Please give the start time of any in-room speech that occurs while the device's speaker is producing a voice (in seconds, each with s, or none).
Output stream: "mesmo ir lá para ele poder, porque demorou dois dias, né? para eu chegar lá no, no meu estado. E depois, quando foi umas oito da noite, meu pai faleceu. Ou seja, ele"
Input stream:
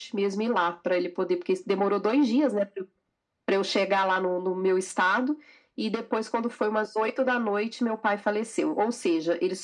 none